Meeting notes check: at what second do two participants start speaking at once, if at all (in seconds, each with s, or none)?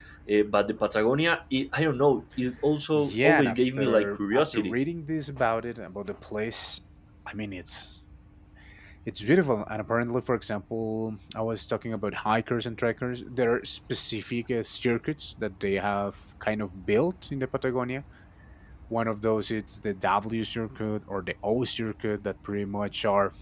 2.9 s